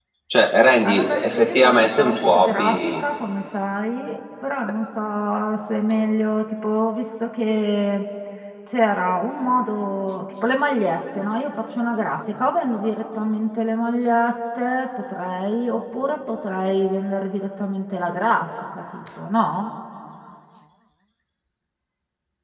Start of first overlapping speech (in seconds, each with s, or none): 0.8 s